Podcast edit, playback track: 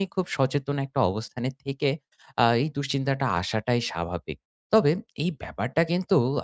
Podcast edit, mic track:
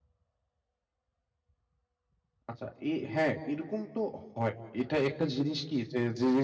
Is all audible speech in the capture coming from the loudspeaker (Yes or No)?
No